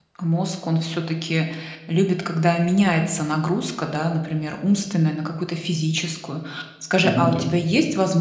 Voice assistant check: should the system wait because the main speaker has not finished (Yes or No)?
Yes